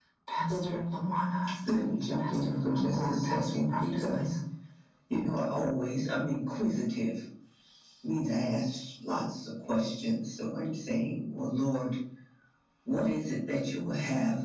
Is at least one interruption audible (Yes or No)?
Yes